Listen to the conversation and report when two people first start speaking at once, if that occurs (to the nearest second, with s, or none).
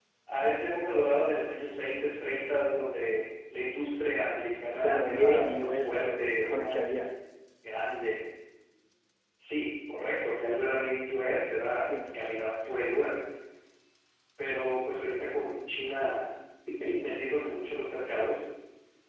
5 s